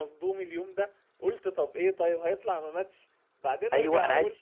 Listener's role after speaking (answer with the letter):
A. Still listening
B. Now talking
B